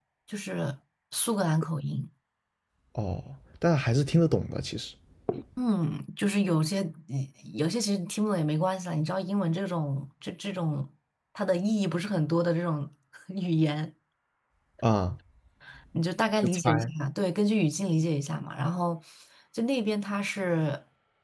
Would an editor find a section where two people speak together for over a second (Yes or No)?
No